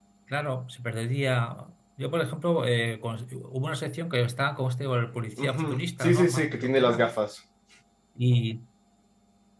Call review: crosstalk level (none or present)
present